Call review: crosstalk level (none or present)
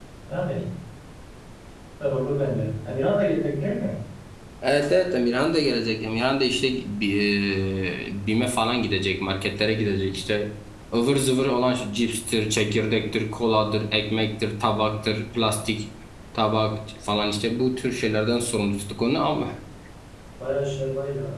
none